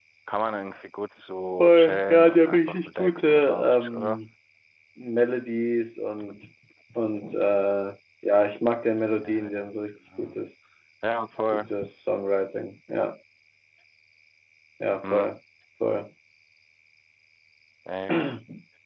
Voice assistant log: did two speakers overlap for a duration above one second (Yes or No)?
Yes